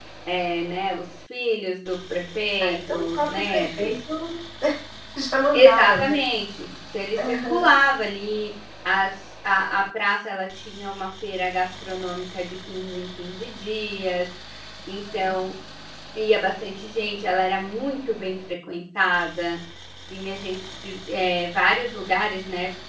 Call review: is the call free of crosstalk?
No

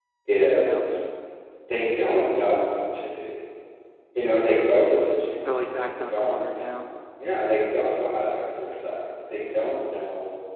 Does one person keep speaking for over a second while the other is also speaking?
Yes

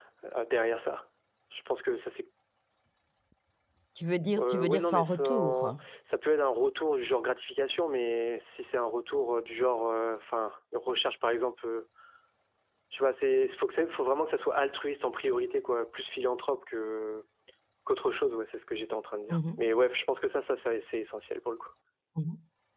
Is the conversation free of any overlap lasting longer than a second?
No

